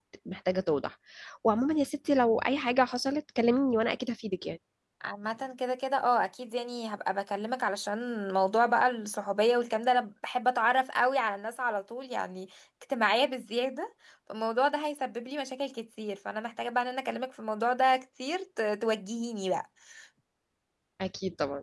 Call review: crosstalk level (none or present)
none